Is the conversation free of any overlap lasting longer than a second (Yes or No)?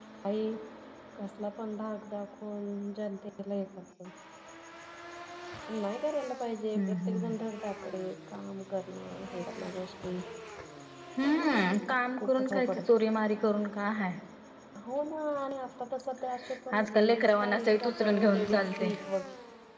No